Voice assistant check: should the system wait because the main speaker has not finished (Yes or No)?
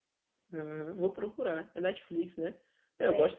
Yes